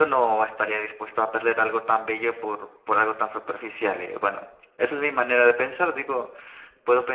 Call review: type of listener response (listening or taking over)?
listening